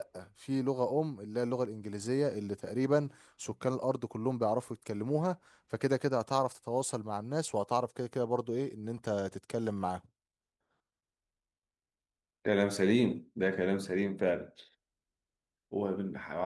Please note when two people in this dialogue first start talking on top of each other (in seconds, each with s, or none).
none